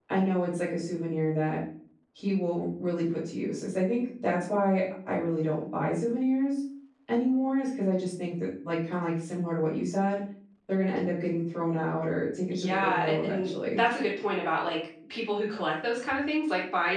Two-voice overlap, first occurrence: 13 s

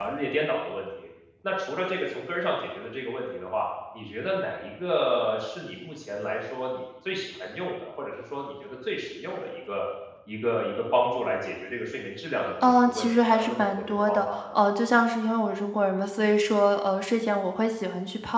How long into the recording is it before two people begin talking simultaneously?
13 s

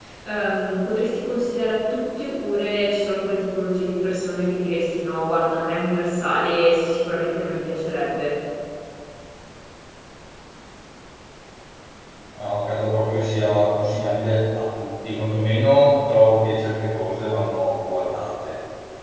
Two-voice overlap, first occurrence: none

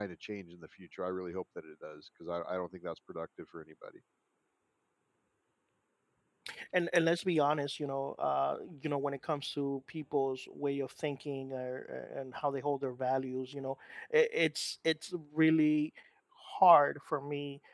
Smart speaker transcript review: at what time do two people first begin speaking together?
none

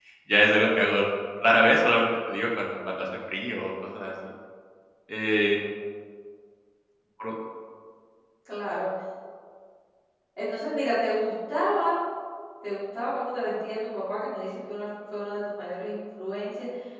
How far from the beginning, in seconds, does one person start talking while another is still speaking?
none

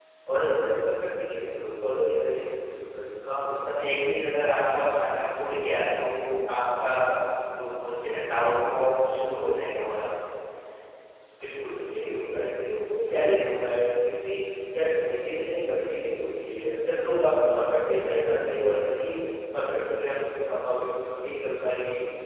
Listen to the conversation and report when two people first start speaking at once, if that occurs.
none

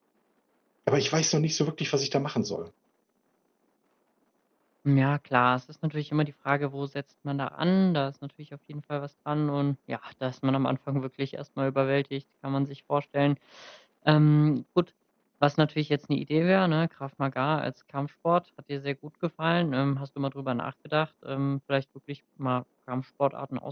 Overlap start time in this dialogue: none

